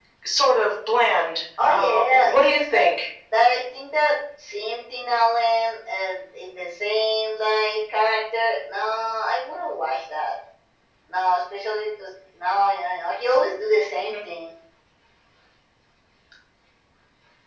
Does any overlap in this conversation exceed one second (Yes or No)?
Yes